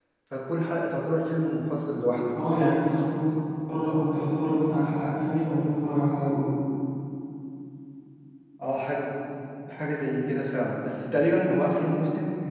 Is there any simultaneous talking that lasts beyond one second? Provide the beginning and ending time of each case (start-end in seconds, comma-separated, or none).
none